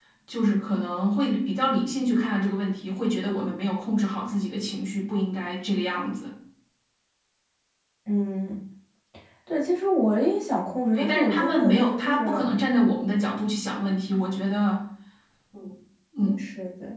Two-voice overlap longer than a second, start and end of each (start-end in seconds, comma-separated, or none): 10.9-12.5